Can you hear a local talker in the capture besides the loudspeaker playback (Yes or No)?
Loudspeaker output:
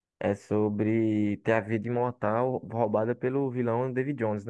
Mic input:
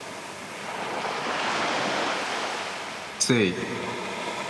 Yes